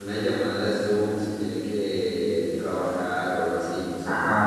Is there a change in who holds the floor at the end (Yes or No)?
Yes